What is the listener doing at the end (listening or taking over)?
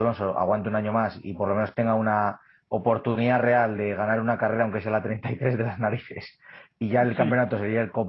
listening